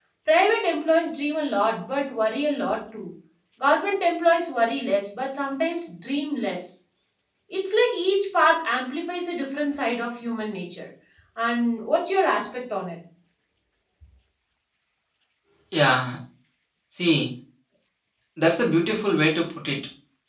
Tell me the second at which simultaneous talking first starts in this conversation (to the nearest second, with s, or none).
none